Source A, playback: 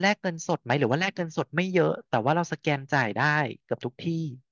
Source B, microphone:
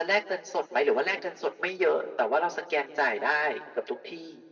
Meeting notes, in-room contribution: none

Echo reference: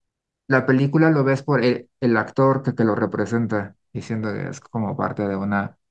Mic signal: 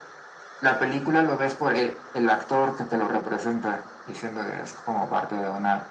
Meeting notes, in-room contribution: none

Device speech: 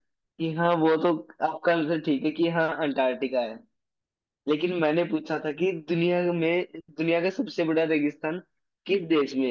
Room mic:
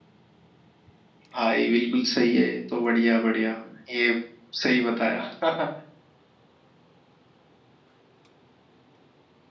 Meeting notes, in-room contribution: present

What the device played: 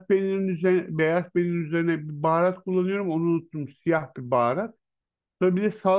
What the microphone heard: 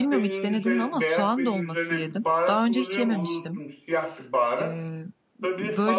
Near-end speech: present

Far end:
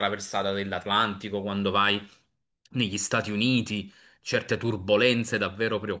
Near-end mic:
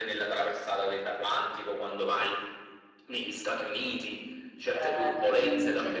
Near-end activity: present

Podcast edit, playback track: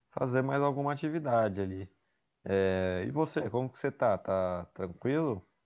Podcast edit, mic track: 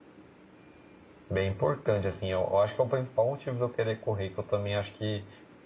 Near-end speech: present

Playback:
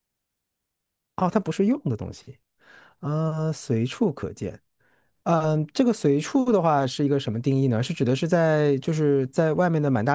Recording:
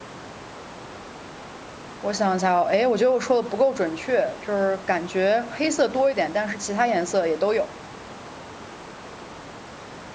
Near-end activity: present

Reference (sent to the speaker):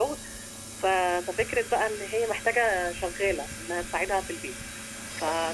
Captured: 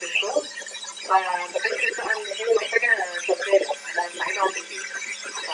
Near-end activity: none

